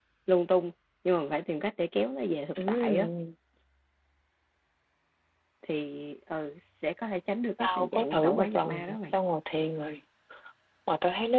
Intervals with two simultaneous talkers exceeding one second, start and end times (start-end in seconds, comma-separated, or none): 7.6-9.0